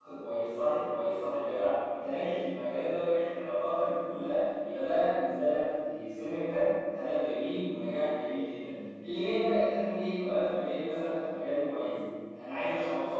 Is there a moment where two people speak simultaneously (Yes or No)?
No